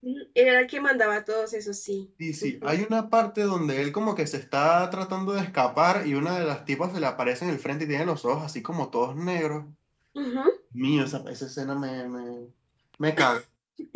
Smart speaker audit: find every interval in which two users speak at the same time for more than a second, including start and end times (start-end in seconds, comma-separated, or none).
none